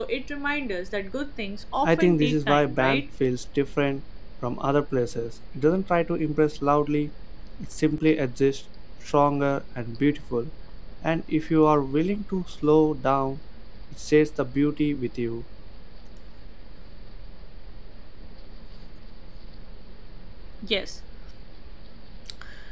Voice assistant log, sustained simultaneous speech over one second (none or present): present